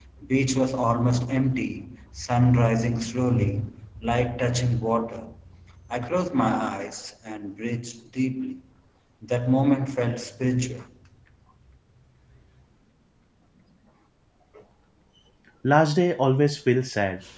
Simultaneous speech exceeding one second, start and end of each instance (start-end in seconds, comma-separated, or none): none